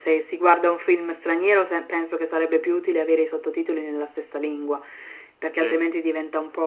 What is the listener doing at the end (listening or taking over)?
listening